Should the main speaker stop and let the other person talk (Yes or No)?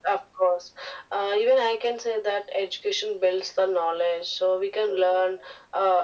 No